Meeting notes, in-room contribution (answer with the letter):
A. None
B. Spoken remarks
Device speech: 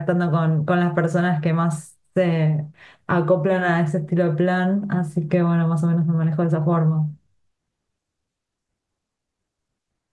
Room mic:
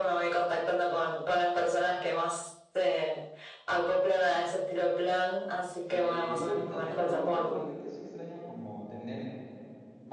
B